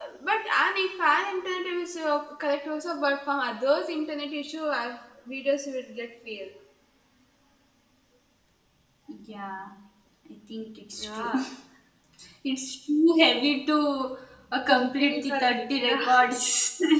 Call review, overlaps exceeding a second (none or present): present